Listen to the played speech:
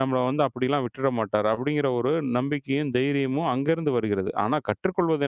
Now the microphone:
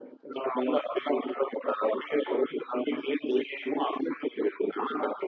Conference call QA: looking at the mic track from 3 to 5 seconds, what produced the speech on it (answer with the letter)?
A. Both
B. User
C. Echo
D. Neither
C